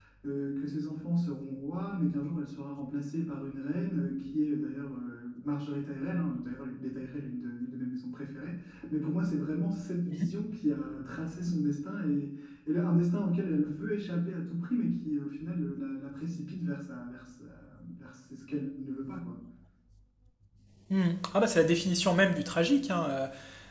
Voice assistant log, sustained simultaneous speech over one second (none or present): none